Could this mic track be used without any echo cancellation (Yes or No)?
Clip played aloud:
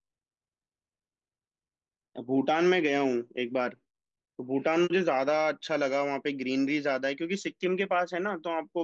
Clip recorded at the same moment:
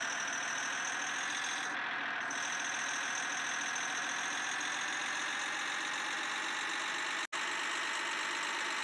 Yes